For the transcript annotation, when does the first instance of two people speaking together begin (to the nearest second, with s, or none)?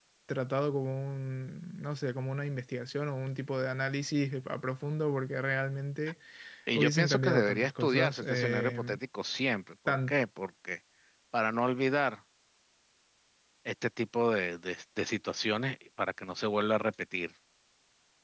7 s